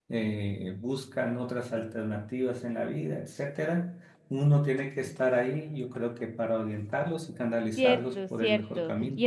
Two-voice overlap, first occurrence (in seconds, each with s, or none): 7.8 s